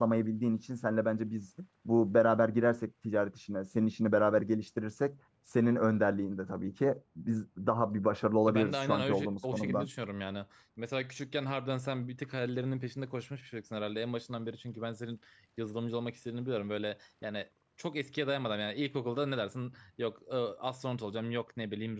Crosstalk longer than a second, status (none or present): present